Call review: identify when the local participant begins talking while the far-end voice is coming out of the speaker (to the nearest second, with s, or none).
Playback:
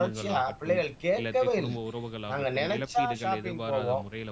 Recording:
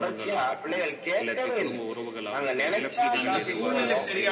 3 s